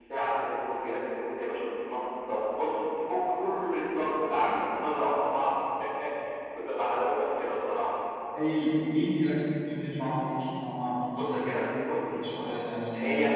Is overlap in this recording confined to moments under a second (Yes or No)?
Yes